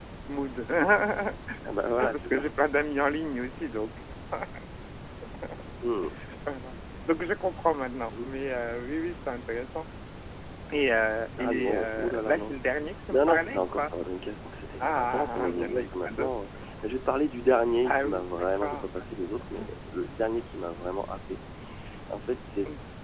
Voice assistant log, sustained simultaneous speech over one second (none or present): present